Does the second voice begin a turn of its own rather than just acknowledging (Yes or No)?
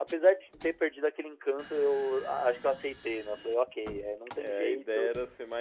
Yes